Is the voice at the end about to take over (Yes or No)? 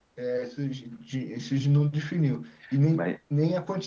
No